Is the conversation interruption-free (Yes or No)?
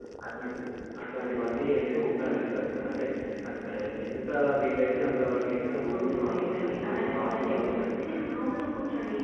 No